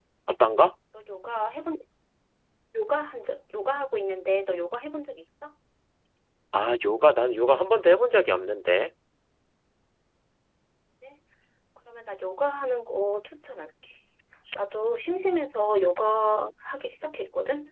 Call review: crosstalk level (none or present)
none